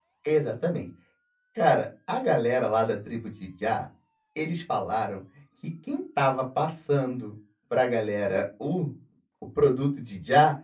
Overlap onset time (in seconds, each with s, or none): none